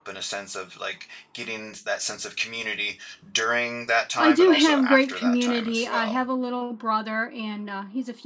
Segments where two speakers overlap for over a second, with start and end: 4.2-6.2

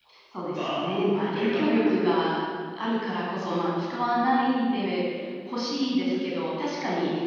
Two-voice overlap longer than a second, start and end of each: 0.5-2.1

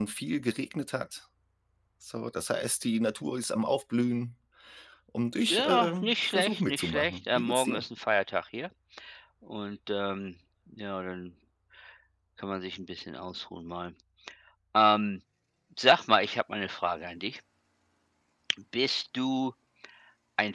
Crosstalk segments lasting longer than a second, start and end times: 5.5-7.8

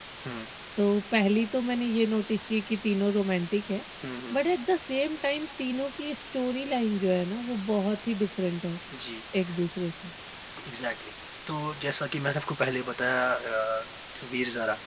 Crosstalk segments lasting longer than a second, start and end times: none

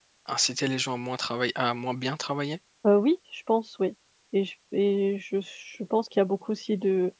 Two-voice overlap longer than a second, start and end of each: none

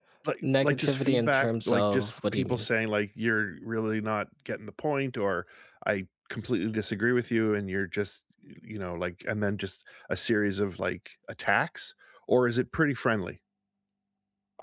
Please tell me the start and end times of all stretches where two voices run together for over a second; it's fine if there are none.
0.6-2.7

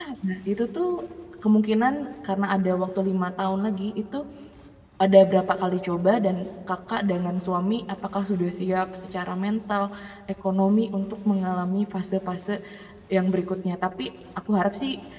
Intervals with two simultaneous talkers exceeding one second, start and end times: none

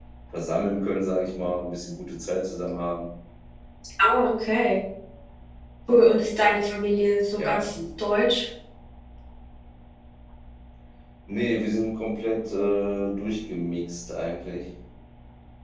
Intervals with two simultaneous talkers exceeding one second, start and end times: none

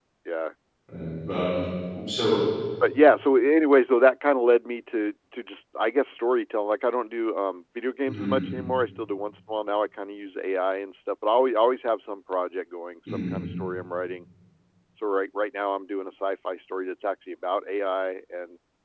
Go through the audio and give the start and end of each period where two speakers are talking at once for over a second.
none

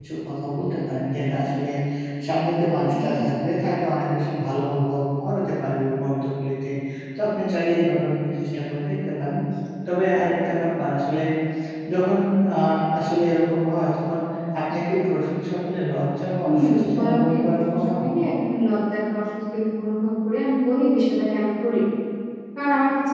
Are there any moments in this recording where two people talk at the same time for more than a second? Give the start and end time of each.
16.4-18.0

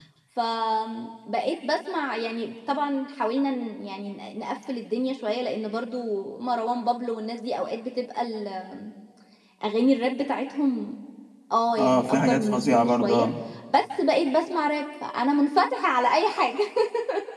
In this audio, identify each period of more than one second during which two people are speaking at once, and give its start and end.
11.8-13.3

